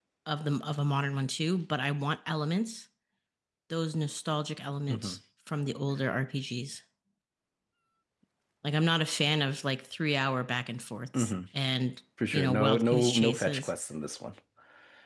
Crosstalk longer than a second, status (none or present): present